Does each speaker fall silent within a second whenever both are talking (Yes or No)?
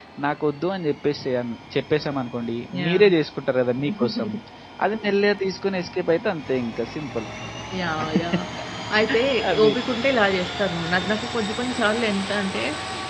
Yes